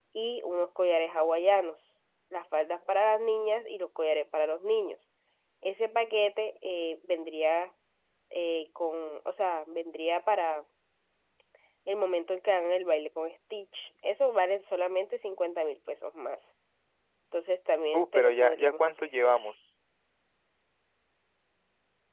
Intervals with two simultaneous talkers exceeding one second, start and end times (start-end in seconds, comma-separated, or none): 17.9-19.4